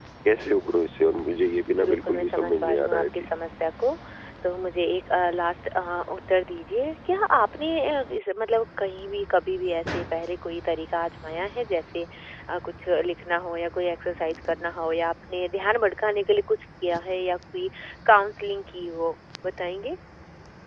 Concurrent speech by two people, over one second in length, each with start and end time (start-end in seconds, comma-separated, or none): 1.8-3.0